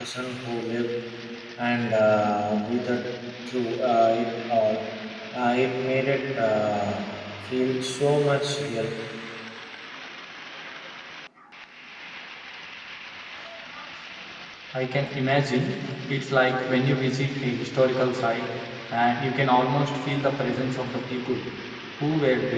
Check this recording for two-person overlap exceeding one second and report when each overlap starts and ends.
none

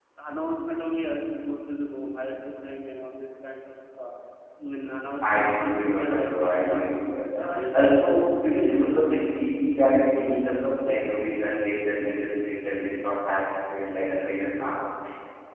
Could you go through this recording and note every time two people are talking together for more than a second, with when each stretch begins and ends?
5.2-7.2

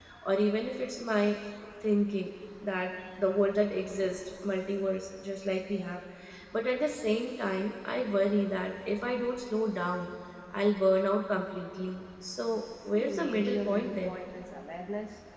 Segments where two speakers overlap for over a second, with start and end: 12.9-14.2

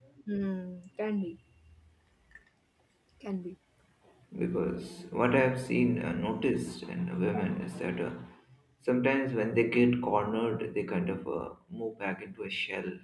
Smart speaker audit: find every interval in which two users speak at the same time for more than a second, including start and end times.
none

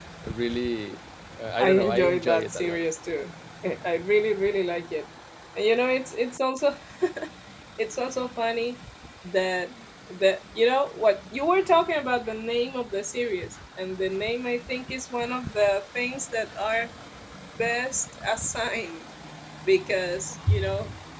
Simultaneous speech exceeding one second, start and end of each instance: 1.6-2.8

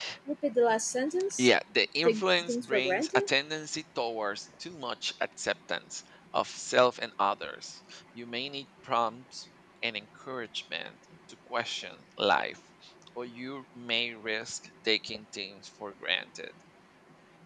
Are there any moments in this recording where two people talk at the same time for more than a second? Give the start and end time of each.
2.0-3.3

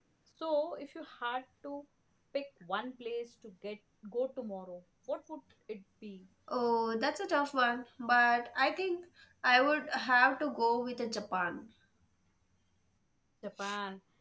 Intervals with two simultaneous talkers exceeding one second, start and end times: none

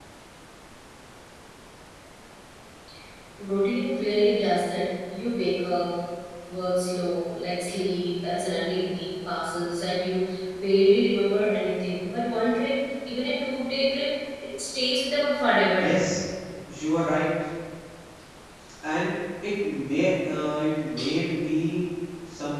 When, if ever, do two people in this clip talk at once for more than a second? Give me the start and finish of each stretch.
none

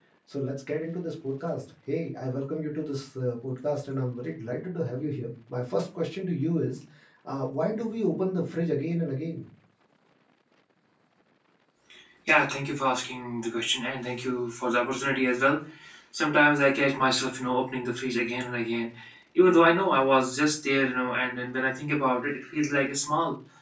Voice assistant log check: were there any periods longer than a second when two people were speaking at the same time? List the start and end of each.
none

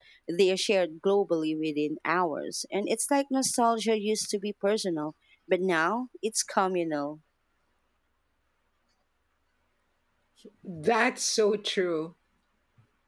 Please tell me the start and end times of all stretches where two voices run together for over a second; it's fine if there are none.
none

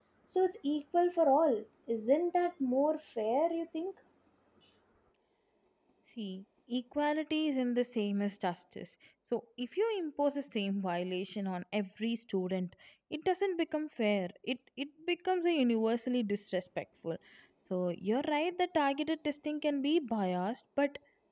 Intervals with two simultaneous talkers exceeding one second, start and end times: none

